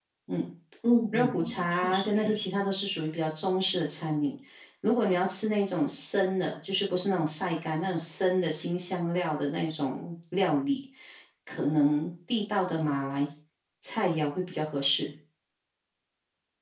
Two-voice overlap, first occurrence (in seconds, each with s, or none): 1.1 s